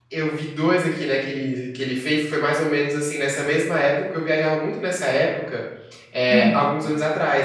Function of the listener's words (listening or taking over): listening